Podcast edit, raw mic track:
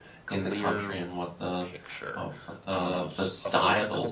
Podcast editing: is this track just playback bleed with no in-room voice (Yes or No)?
No